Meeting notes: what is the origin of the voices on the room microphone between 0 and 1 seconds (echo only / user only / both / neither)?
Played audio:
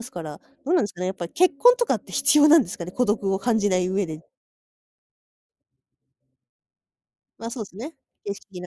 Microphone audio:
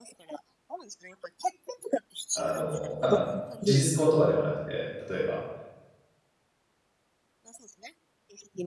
echo only